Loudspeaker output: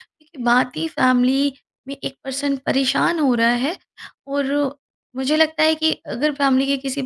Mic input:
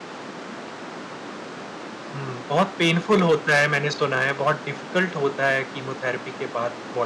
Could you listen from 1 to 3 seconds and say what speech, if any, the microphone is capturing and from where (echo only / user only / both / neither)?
user only